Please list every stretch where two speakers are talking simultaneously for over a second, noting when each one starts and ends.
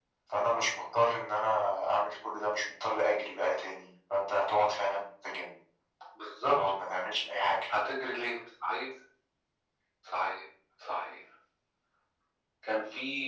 none

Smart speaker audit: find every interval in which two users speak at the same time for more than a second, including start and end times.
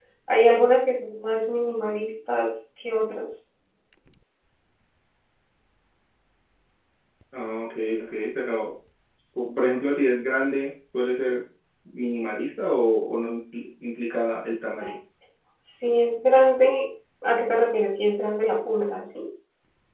none

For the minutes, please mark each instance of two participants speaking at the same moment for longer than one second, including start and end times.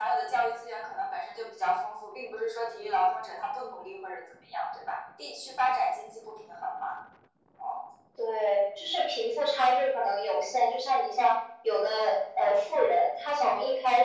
none

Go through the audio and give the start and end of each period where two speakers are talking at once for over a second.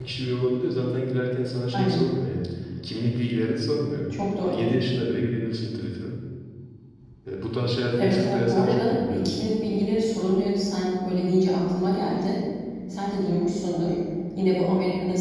8.0-9.3

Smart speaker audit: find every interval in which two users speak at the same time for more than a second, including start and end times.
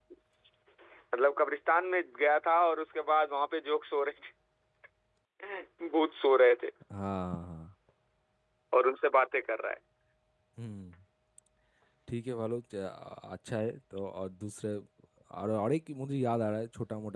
none

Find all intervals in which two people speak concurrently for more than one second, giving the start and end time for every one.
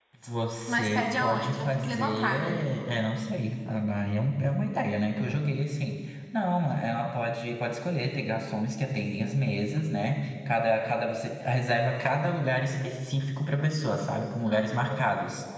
0.7-2.6

